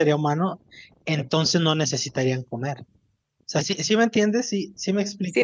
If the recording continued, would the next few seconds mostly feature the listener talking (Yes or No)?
Yes